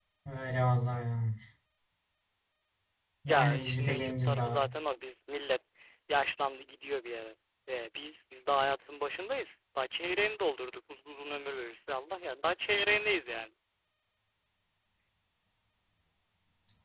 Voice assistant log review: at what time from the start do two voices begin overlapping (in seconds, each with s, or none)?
3.3 s